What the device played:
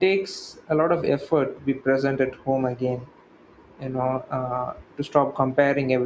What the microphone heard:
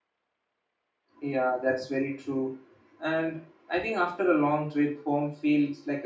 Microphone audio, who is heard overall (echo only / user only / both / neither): user only